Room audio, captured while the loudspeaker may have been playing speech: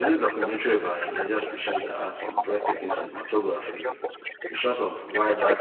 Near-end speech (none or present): present